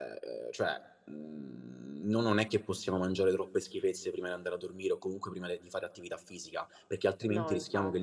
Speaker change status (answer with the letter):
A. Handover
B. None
B